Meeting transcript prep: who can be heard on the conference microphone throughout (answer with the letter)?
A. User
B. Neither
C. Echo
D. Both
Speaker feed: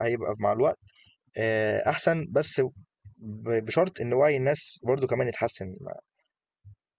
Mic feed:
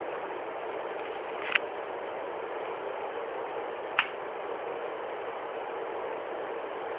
B